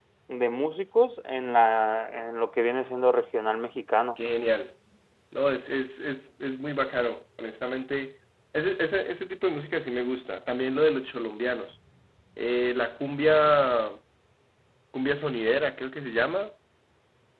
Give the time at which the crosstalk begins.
none

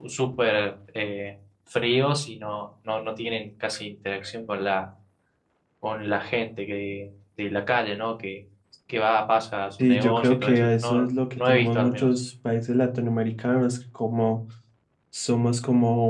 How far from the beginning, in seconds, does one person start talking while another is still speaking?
9.8 s

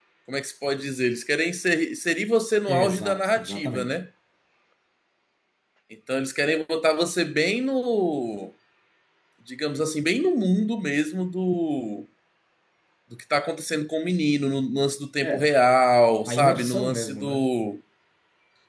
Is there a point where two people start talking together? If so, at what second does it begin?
2.7 s

